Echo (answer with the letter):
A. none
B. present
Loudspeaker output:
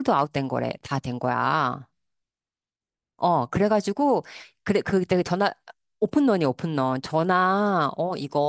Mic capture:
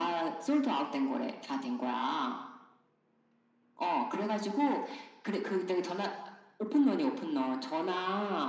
B